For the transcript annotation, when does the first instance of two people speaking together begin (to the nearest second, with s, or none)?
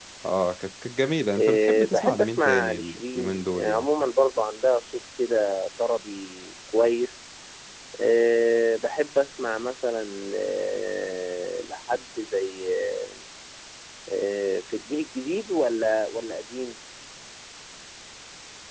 1 s